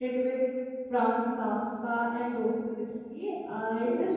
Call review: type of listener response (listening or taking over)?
listening